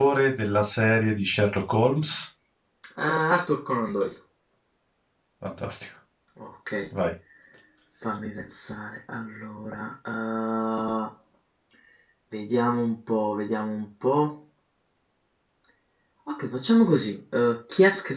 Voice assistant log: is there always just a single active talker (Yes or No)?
Yes